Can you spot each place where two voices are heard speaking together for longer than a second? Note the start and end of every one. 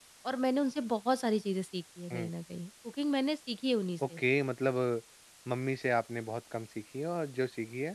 none

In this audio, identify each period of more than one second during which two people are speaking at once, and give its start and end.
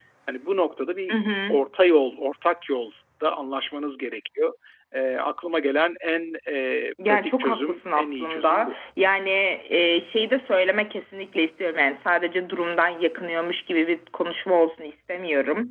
7.1-8.7

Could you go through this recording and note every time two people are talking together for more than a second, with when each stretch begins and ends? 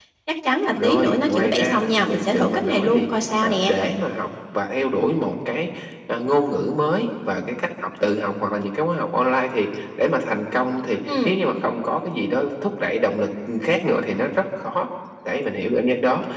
0.7-3.7

